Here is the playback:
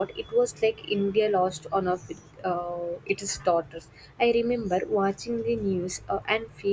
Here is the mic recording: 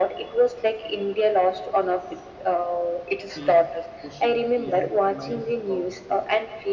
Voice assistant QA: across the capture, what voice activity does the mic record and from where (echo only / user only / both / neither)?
both